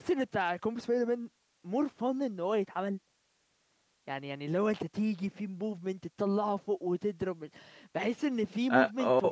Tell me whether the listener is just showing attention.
Yes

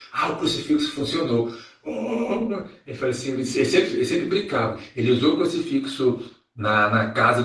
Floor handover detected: No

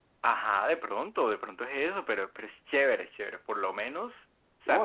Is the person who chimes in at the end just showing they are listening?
No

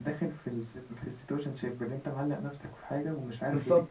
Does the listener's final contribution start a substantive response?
Yes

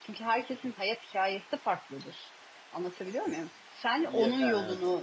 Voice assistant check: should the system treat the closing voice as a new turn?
No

